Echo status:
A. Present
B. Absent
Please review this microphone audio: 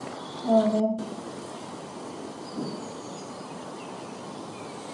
B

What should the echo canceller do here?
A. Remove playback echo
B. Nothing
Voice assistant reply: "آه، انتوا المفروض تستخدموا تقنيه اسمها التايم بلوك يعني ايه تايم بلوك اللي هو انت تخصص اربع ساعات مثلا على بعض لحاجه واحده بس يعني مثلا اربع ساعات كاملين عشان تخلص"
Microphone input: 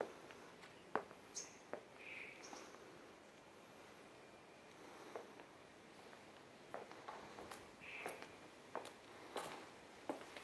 B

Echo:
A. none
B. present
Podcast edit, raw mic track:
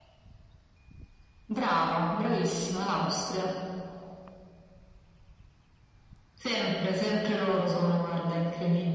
B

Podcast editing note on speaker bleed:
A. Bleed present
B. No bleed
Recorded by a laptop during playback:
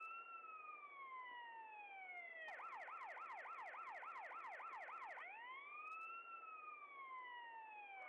B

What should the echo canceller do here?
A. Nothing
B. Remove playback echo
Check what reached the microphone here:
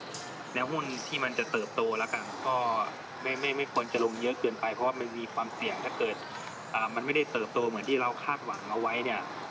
B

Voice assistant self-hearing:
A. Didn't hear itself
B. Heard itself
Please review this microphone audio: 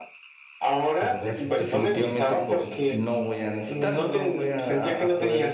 B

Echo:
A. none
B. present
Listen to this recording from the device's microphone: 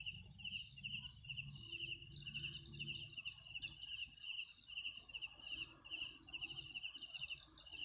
A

